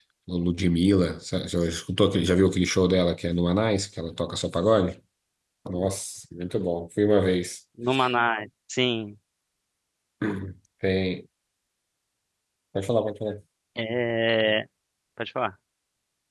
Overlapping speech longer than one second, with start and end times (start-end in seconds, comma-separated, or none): none